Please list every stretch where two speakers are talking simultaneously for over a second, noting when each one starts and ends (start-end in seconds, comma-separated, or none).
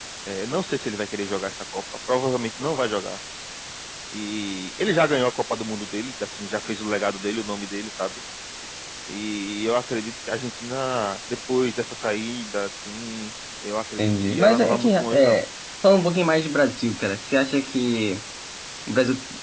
14.0-15.4